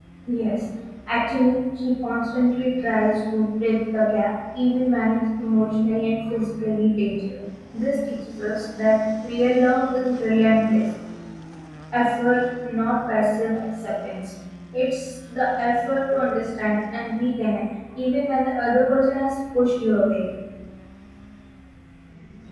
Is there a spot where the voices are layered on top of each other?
No

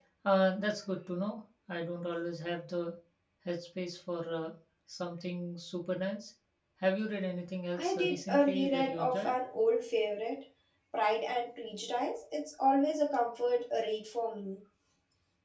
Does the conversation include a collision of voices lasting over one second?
Yes, from 7.8 s

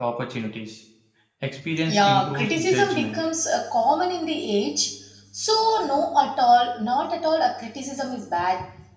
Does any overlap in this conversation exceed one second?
Yes, from 1.9 s

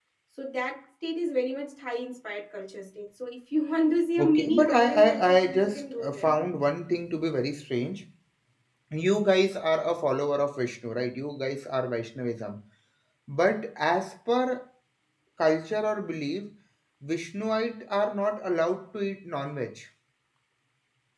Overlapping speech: Yes, from 4.2 s

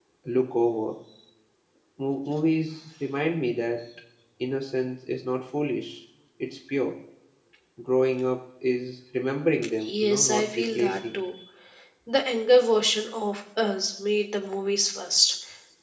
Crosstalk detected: Yes, from 9.8 s

